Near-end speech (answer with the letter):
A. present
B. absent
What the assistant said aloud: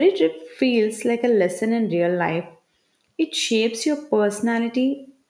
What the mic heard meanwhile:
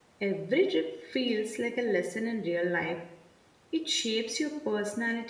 B